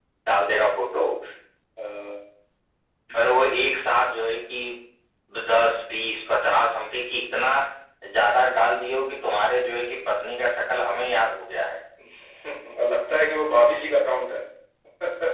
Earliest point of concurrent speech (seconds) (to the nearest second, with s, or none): none